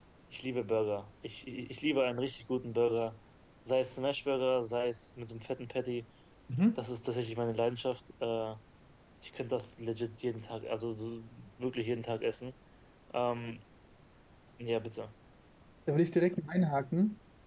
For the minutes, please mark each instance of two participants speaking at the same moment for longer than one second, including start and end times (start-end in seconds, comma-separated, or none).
none